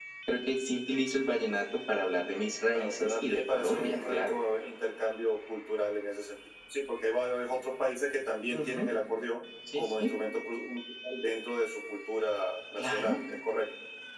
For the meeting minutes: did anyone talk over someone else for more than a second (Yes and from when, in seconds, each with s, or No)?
Yes, from 2.7 s